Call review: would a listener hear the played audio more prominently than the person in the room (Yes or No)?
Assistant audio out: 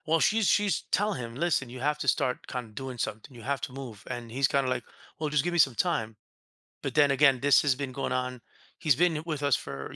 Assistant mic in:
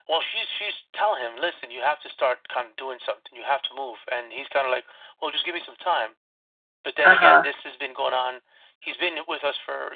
No